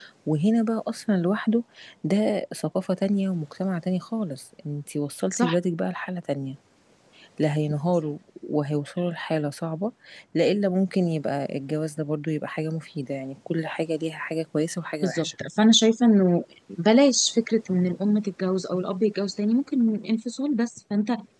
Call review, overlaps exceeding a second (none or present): none